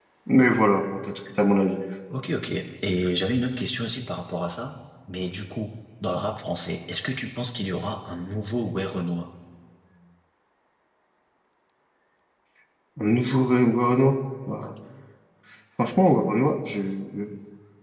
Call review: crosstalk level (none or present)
none